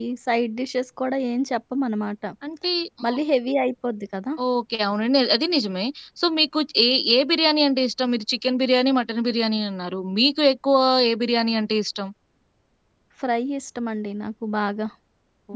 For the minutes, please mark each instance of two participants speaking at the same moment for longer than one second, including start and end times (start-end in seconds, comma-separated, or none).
none